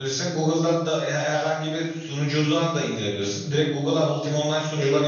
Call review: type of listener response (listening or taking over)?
listening